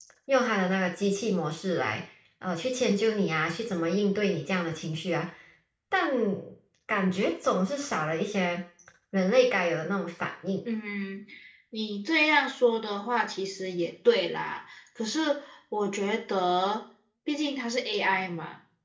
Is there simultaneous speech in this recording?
No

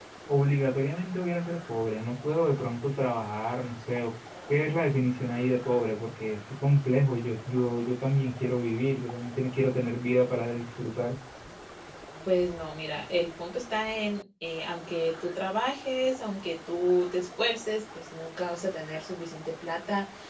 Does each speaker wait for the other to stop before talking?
Yes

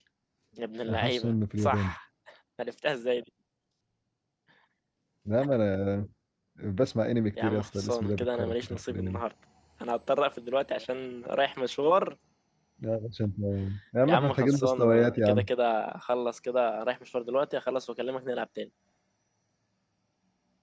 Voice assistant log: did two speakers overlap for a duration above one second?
Yes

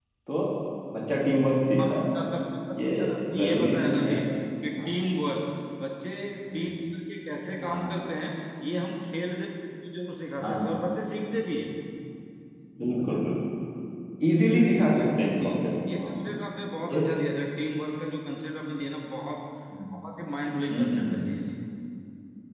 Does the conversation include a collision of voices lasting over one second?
Yes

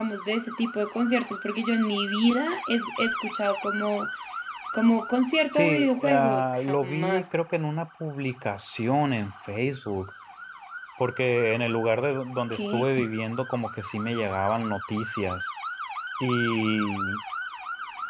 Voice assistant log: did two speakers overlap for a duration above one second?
Yes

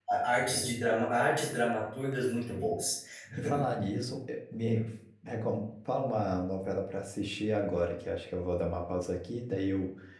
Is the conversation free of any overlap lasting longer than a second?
Yes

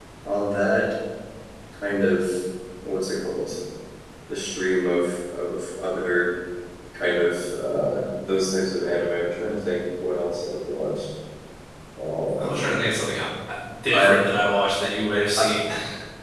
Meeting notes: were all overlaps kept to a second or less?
Yes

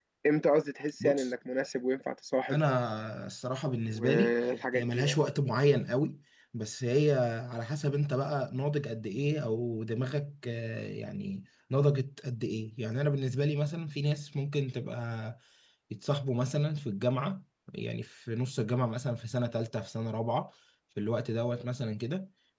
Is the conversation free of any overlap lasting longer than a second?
Yes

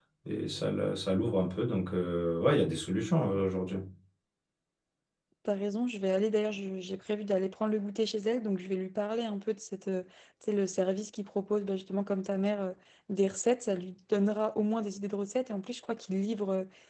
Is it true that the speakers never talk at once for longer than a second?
Yes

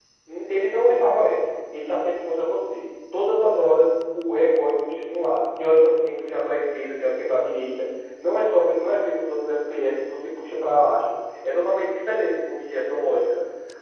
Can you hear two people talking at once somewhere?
No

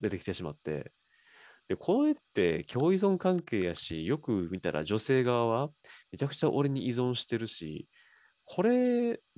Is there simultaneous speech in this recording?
No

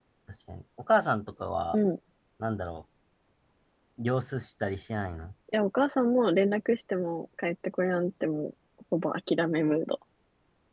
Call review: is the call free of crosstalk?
Yes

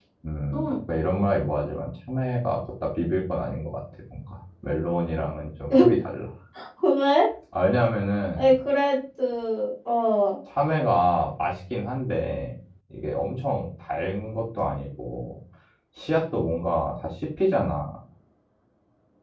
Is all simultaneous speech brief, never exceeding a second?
Yes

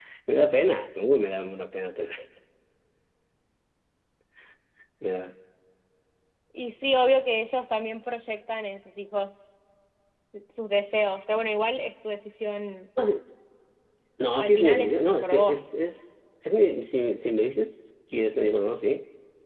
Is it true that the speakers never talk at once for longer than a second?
No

